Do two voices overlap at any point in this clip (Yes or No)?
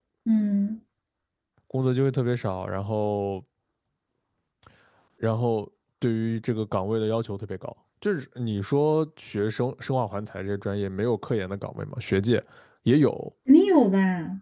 No